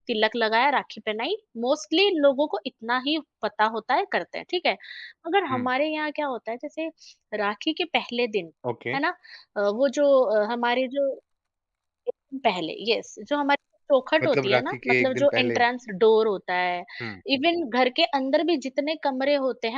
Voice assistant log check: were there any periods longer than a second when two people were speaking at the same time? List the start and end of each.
14.2-15.6

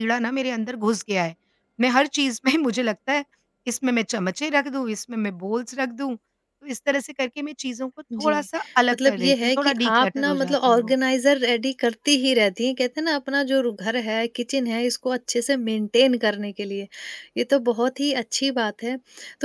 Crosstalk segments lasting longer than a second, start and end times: 8.9-10.9

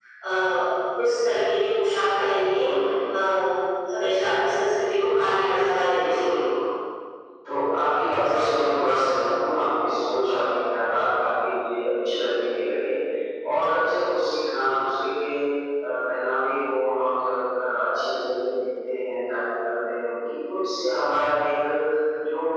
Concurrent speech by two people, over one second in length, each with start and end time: none

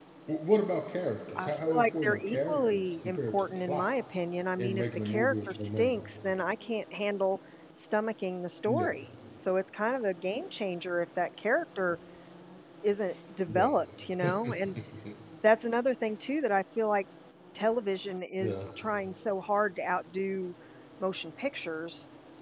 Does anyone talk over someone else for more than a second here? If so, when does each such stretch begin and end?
1.4-3.9, 4.6-6.0

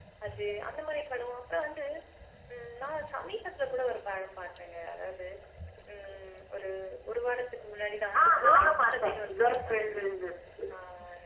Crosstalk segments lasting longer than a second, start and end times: 8.2-10.0

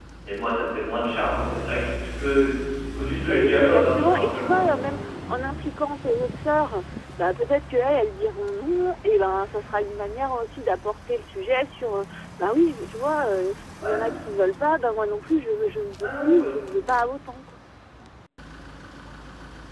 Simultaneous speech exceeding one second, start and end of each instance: 3.3-4.8

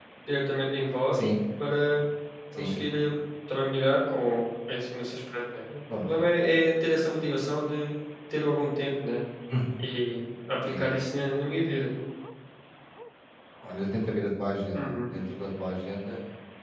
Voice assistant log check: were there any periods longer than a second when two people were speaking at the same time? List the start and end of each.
none

